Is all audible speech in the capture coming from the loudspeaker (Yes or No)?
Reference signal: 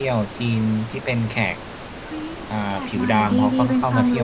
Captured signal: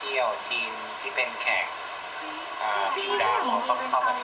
No